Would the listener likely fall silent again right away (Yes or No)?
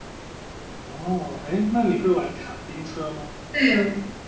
No